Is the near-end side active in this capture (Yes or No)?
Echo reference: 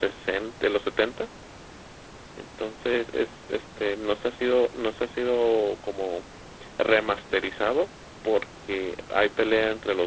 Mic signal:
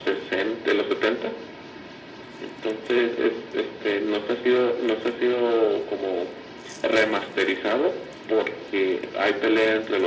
No